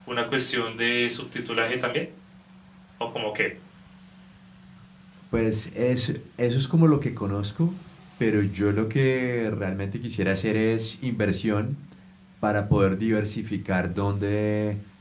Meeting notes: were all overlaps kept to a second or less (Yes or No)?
Yes